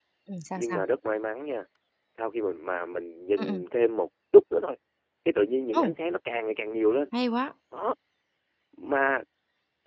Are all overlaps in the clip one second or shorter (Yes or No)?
Yes